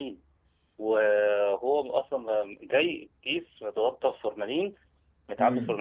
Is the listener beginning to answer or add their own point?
No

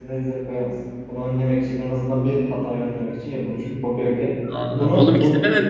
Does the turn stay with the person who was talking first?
No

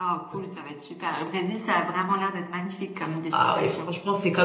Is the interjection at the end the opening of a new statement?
Yes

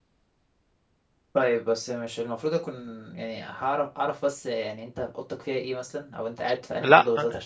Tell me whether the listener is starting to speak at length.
No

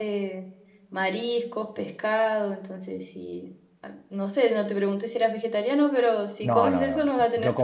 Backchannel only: No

